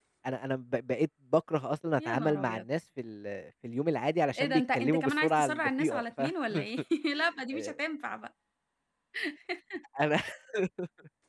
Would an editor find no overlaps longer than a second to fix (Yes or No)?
No